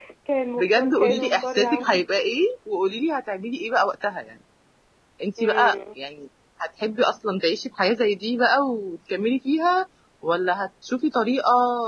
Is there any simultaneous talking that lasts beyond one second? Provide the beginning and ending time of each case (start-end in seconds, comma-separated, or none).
0.6-1.9